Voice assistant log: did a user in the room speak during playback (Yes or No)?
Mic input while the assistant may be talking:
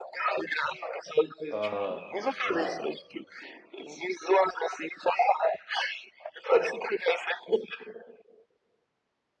Yes